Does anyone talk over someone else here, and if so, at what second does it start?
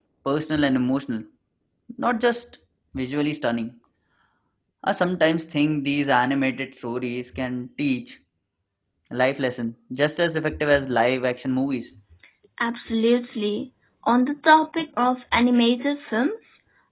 none

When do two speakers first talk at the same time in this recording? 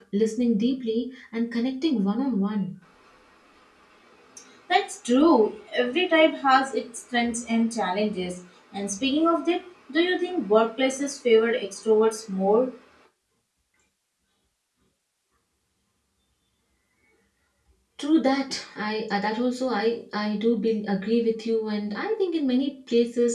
none

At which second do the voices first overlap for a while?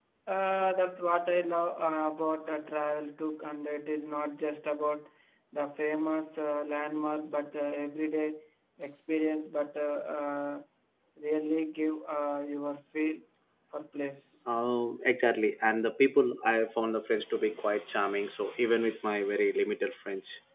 none

